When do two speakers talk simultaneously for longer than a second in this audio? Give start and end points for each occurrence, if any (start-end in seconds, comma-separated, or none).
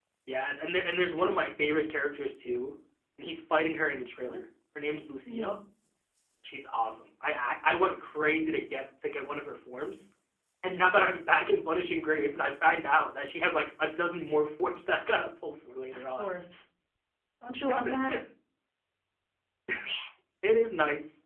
none